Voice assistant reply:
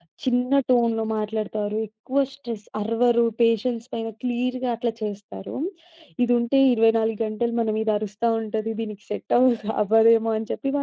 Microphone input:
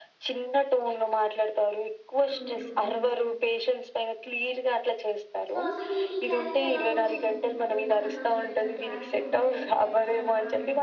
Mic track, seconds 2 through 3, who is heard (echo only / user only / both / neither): both